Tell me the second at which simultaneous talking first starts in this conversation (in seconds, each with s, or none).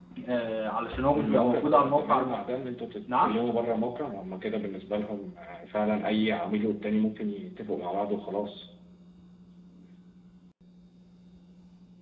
1.1 s